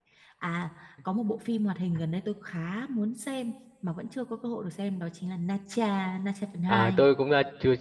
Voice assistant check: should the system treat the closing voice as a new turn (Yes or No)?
Yes